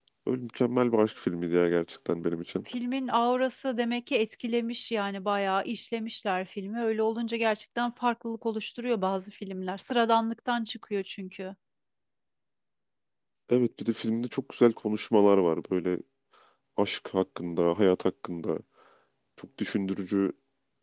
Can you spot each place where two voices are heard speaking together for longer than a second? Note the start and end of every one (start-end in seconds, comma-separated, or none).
none